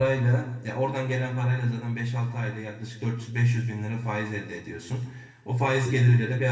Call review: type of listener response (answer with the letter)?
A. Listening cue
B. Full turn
A